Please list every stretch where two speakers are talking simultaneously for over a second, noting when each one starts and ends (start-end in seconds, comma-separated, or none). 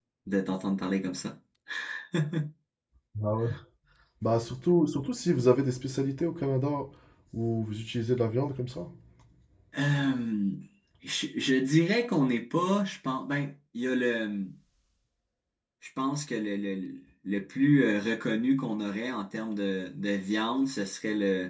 none